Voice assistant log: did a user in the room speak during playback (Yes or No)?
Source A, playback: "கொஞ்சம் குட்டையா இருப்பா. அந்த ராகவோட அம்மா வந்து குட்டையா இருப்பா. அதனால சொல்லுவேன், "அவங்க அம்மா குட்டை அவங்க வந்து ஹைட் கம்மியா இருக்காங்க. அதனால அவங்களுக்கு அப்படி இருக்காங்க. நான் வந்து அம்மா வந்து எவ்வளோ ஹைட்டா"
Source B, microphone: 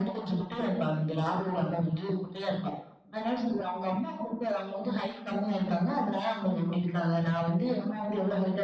No